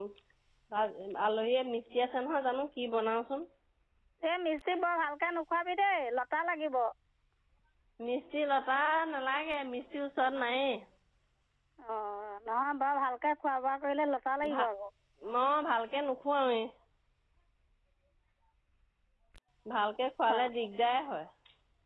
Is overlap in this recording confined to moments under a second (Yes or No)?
Yes